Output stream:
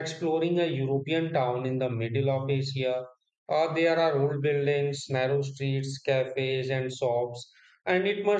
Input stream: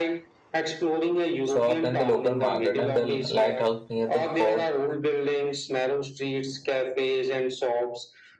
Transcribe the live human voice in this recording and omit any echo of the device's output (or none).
shops, and the local market, and the lighthouse near the fort